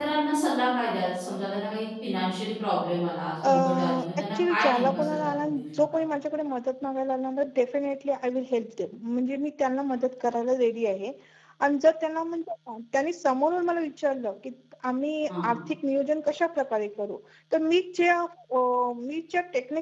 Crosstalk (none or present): present